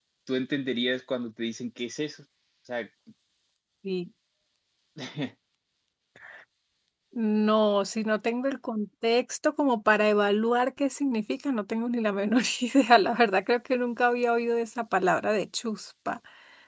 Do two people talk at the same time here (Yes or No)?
No